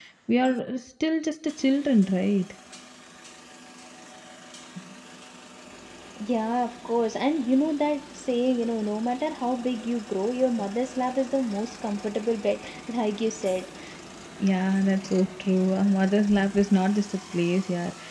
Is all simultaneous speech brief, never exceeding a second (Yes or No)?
Yes